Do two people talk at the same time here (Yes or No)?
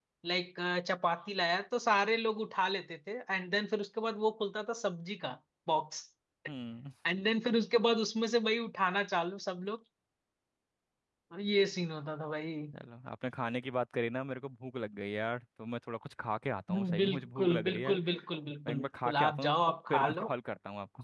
Yes